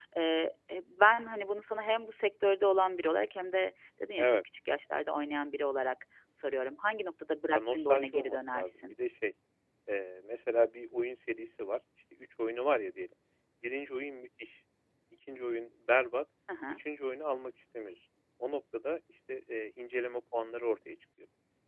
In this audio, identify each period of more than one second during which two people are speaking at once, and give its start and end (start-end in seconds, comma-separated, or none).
7.5-9.0